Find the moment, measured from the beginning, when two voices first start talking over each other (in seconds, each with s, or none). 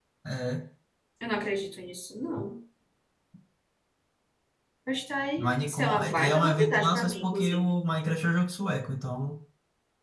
5.4 s